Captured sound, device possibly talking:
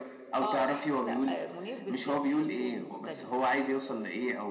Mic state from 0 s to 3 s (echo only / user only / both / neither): both